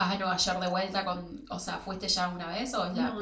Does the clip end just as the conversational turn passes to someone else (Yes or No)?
Yes